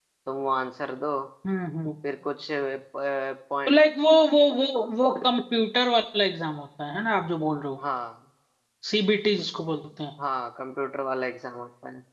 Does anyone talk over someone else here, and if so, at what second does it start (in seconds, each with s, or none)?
none